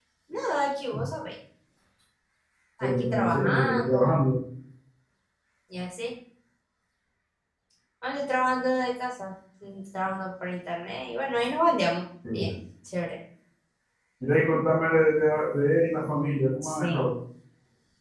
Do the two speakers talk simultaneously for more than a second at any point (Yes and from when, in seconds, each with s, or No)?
Yes, from 2.8 s